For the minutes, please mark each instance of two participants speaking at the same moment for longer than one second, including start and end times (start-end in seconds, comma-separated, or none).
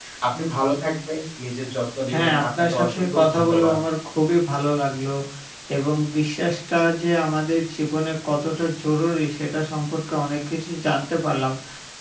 2.1-3.8